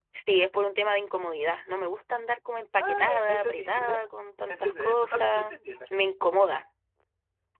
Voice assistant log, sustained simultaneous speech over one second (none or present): present